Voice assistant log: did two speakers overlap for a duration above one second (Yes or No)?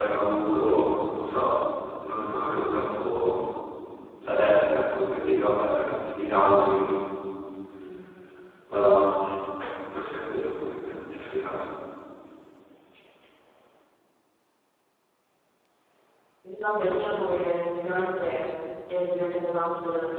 No